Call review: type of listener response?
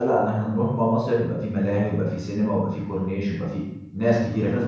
taking over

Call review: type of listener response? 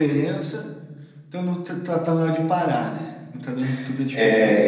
taking over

